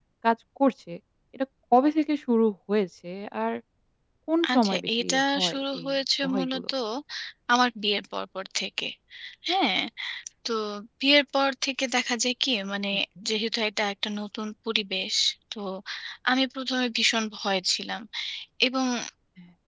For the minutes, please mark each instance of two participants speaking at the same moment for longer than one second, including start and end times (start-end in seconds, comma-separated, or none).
4.5-5.9